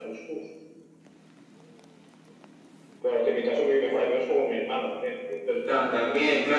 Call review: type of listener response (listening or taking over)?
taking over